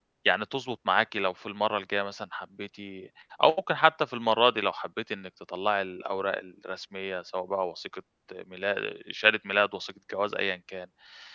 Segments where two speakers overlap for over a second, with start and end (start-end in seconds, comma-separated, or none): none